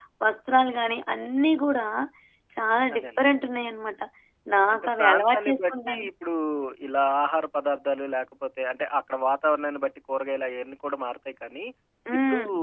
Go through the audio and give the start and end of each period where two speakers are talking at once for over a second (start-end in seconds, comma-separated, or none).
4.7-6.0